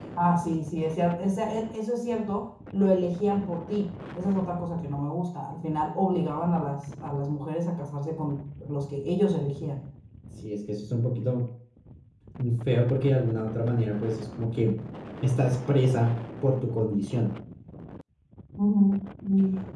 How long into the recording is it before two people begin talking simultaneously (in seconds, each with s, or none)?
none